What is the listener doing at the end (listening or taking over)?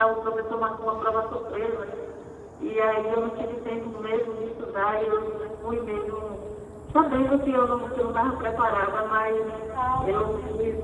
listening